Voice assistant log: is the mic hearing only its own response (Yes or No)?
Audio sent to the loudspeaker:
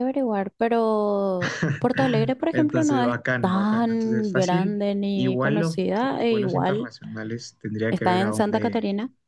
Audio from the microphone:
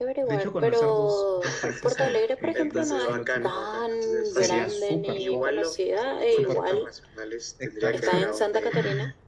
No